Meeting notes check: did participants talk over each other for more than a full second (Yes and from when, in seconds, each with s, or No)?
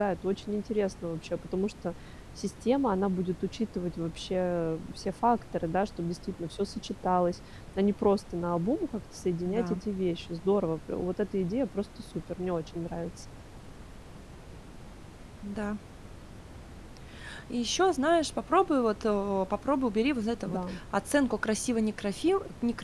No